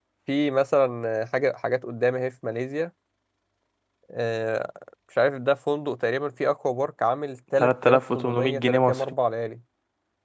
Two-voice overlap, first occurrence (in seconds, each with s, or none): 7.6 s